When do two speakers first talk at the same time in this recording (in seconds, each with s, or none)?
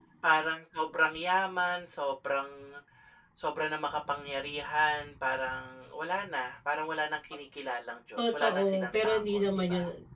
8.2 s